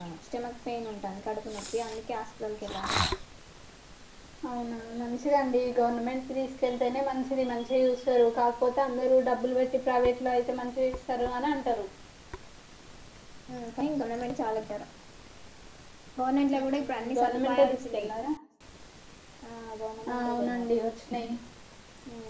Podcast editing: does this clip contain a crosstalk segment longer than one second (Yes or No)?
Yes